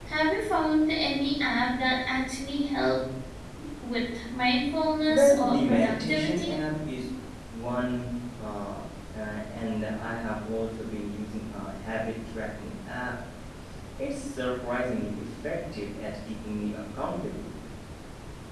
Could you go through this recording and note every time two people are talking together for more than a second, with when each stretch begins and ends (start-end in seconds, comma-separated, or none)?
5.1-6.6